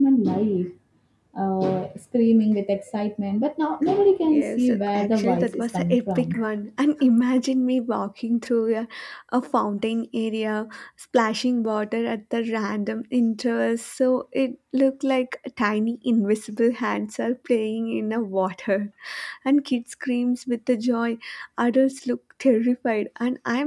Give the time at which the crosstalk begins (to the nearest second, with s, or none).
4 s